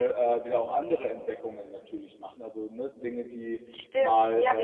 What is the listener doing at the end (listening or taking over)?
taking over